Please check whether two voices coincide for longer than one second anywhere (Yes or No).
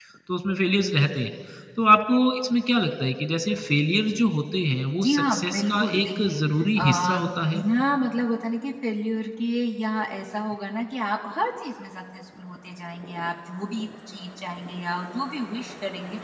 Yes